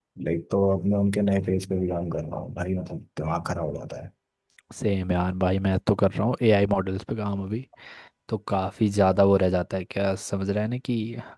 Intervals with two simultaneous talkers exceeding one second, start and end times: none

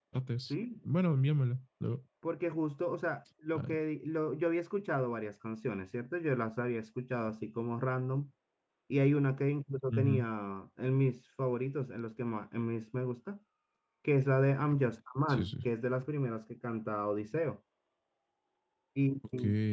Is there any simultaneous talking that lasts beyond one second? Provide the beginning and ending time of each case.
none

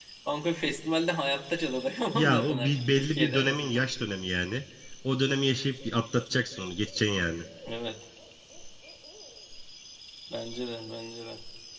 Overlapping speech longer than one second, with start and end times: 2.1-3.9

